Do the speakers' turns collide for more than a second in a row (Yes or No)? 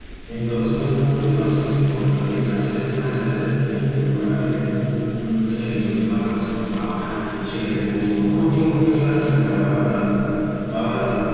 No